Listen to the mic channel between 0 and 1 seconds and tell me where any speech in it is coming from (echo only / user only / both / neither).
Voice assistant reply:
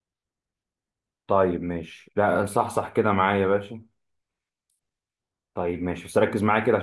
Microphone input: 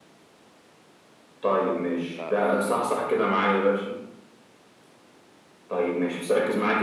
neither